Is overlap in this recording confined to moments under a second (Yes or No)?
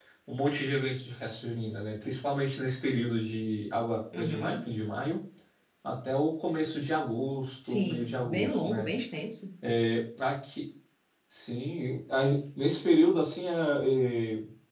No